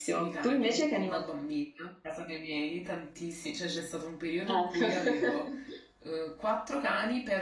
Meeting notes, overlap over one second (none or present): present